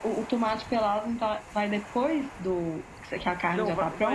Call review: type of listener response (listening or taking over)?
taking over